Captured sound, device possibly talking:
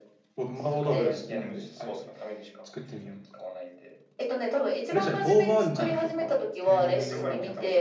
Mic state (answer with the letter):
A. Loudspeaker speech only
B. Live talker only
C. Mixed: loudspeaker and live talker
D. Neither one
C